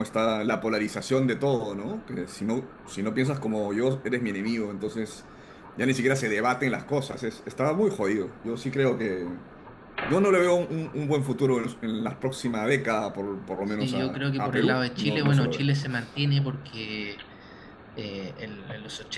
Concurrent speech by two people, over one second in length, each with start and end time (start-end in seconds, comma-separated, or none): 13.8-15.6